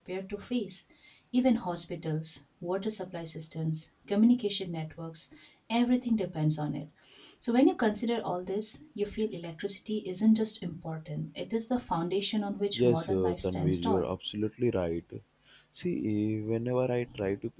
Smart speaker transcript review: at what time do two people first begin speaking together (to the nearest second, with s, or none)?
13 s